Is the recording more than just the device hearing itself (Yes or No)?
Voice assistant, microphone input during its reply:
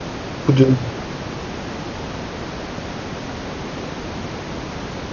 Yes